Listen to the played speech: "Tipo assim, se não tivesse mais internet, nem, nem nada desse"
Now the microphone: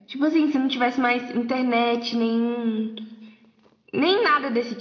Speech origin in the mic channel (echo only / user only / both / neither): echo only